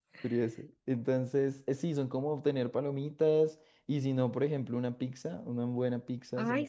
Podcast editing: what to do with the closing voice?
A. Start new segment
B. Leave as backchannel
A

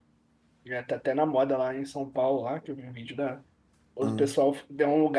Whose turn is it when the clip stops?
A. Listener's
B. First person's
B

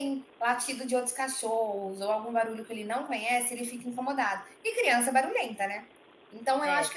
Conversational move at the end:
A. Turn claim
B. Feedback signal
B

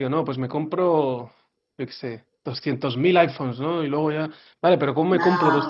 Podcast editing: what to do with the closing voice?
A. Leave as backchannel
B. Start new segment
A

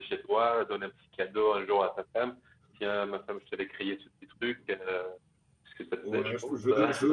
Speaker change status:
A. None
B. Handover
B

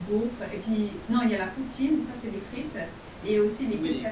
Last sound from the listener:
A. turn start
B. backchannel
A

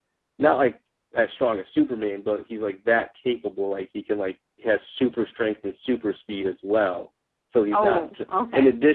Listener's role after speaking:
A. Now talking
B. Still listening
B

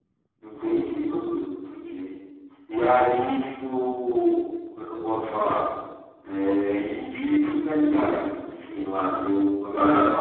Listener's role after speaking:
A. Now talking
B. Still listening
B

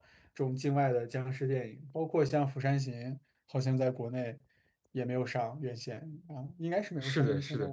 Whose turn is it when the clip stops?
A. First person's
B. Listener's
B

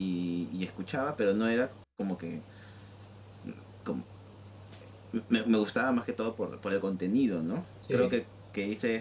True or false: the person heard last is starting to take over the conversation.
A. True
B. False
B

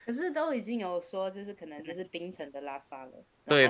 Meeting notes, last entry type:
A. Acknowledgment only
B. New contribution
B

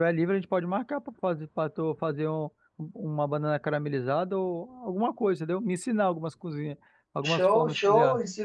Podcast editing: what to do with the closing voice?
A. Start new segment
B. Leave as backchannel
A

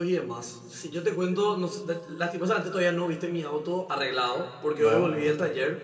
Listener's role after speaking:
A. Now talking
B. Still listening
B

